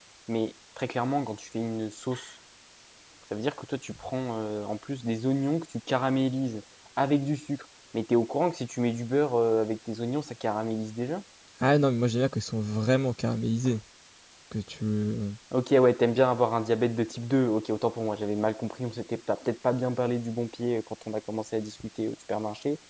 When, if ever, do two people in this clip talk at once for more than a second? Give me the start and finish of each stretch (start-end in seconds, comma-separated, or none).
none